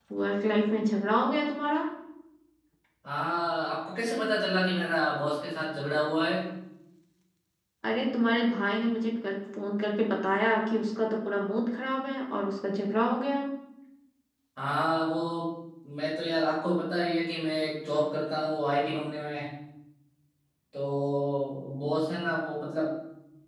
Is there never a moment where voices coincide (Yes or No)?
Yes